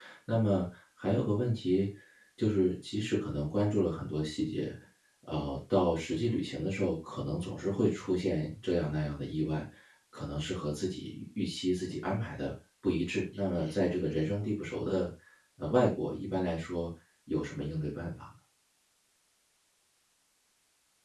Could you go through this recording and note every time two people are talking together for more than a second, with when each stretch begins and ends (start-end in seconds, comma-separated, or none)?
none